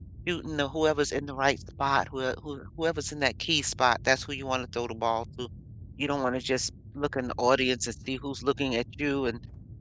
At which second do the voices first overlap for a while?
none

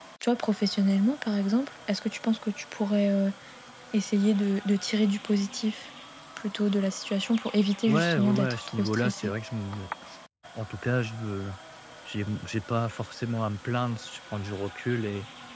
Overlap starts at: 7.9 s

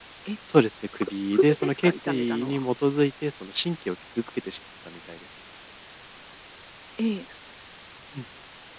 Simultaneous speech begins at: 1.0 s

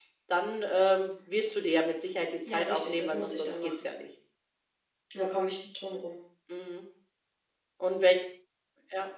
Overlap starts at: 2.5 s

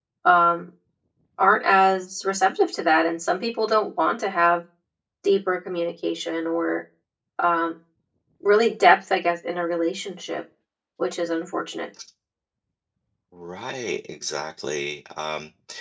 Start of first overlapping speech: none

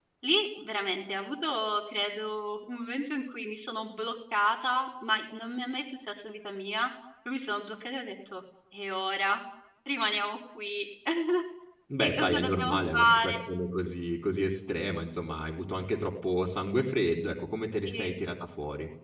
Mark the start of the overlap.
12.0 s

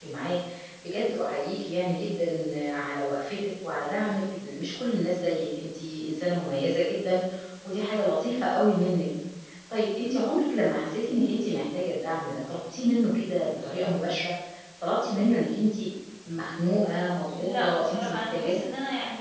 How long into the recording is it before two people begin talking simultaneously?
17.4 s

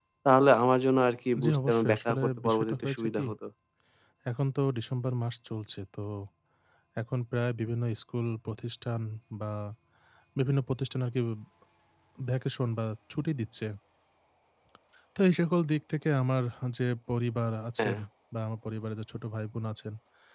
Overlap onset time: 1.4 s

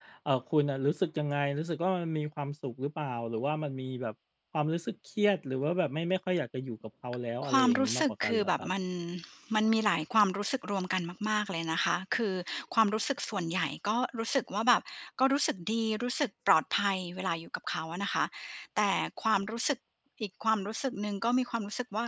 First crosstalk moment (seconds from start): 7.4 s

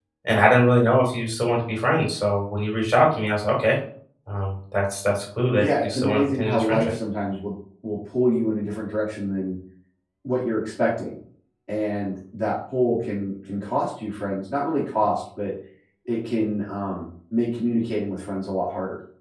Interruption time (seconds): 5.6 s

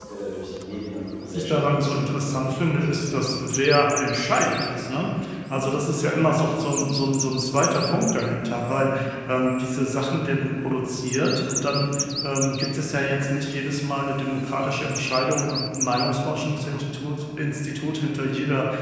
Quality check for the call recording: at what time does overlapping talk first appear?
1.2 s

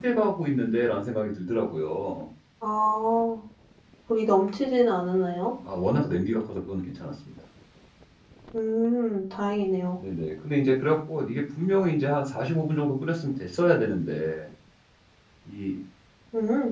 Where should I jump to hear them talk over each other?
none

